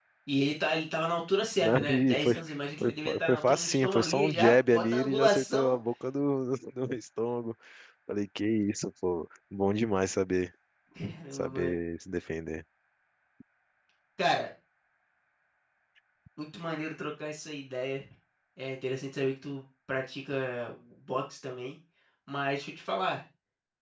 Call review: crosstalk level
present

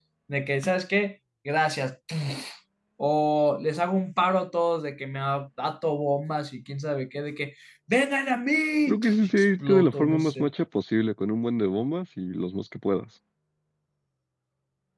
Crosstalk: present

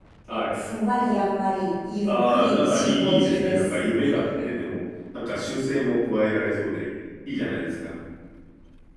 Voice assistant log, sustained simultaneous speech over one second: present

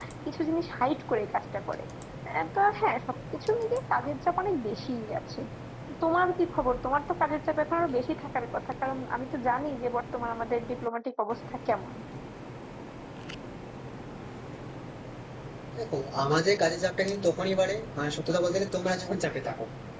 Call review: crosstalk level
none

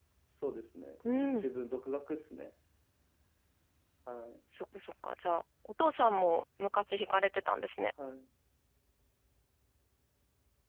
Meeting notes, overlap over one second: none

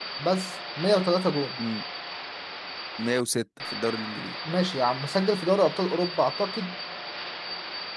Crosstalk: none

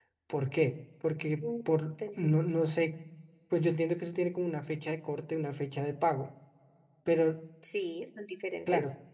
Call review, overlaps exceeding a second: none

